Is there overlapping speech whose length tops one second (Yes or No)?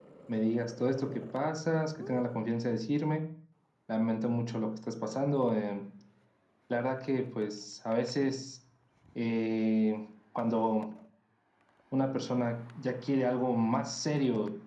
No